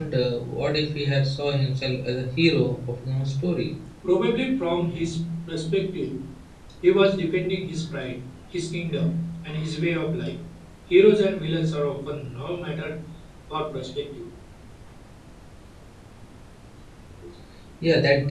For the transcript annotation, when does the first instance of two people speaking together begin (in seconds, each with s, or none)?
none